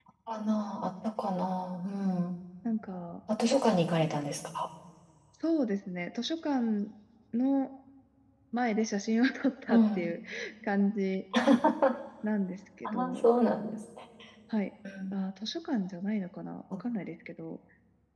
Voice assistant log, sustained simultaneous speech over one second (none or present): none